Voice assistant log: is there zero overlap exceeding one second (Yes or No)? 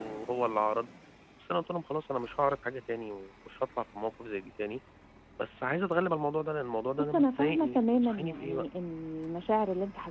No